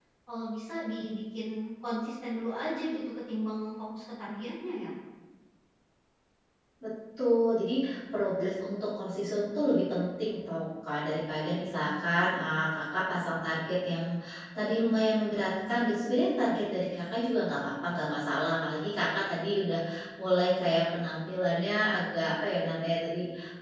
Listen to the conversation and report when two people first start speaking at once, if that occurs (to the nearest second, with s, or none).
none